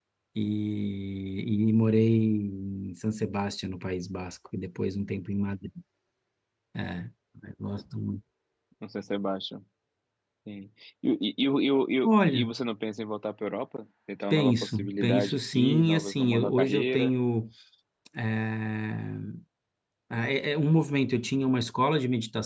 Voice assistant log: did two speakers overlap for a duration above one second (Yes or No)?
Yes